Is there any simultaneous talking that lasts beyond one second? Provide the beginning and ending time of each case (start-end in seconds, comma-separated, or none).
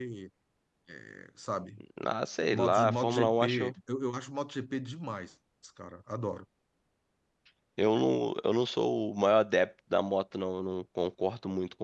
2.5-3.7